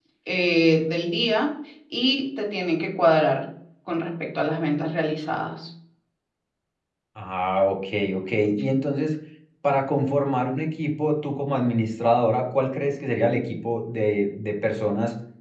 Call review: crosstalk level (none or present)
none